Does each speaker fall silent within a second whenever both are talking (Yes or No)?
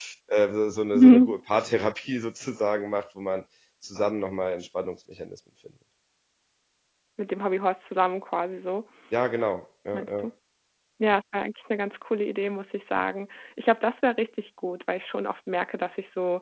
Yes